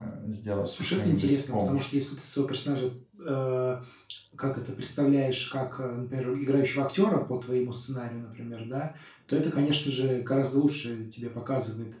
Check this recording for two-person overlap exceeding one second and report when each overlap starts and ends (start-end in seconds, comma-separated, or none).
0.6-2.0